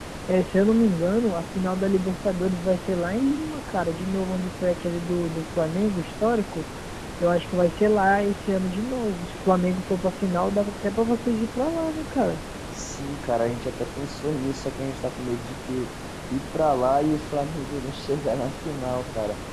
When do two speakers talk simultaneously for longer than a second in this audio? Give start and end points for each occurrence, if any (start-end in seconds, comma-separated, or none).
none